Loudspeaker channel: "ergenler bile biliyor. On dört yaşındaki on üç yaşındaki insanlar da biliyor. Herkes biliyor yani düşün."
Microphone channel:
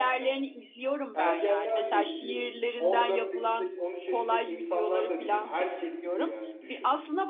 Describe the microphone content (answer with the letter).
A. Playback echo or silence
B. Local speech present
B